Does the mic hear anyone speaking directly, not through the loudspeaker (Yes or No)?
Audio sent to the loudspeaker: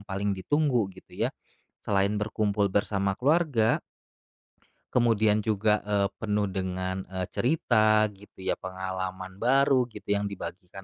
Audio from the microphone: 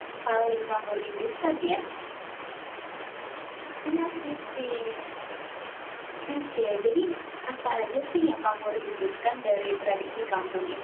Yes